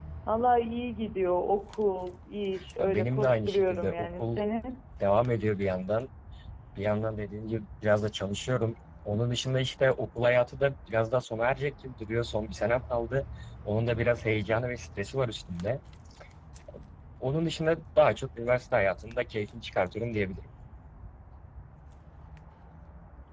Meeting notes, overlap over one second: present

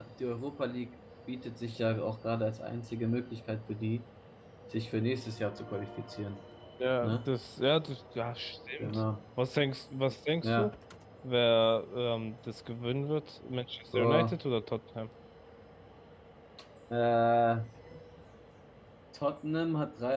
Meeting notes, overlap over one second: none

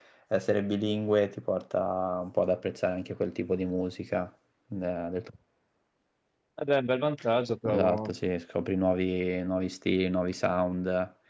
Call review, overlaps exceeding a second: none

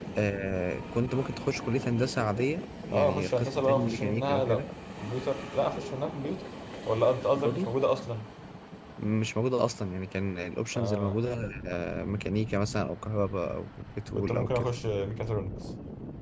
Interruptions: present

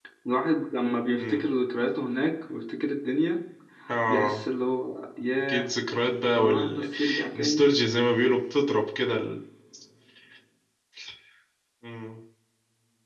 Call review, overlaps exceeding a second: present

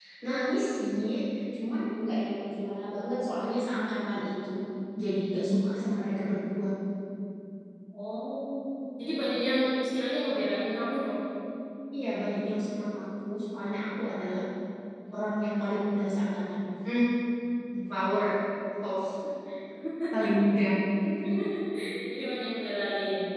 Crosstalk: none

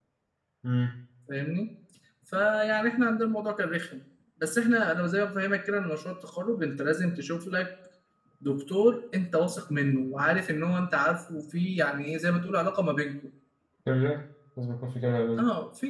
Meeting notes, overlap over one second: none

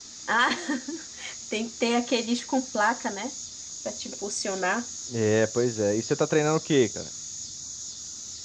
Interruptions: none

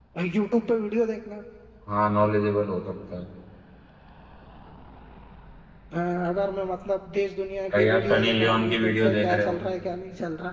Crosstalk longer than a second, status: present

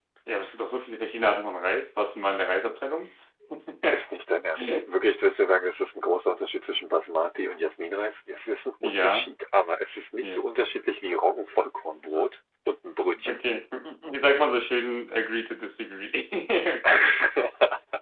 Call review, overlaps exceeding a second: none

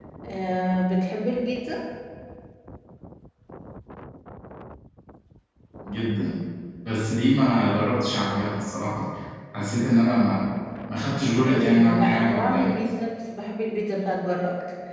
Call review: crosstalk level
present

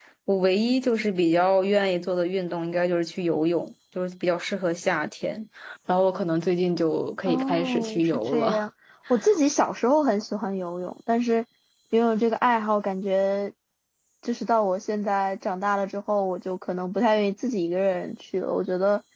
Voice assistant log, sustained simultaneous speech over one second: present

